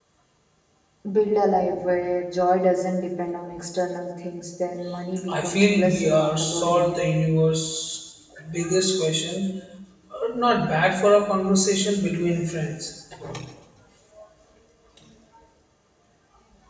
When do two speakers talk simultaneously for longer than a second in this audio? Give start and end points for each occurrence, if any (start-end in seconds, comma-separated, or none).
5.3-6.9